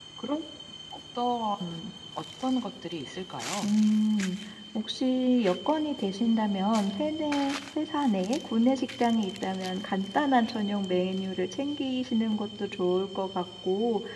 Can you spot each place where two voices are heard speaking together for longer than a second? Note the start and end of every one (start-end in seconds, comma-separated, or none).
none